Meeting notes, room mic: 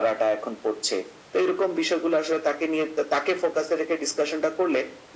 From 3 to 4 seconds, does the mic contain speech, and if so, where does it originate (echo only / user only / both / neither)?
echo only